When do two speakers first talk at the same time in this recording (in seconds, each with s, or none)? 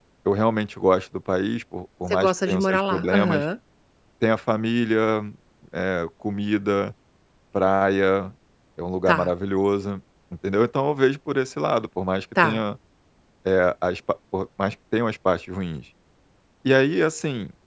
2.1 s